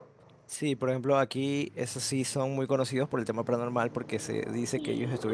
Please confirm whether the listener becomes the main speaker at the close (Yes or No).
No